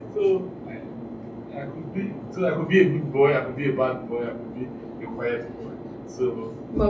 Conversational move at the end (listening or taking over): taking over